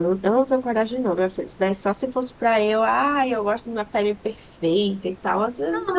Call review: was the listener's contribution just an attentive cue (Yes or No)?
No